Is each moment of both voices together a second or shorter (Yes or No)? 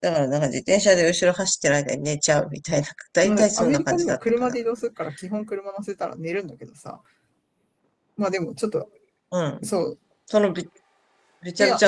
No